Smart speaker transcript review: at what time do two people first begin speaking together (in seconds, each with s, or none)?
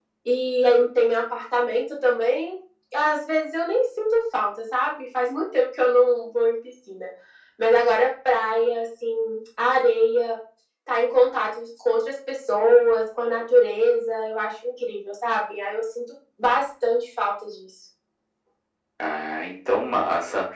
none